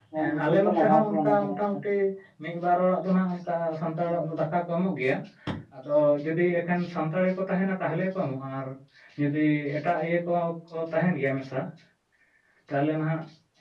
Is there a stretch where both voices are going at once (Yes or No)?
Yes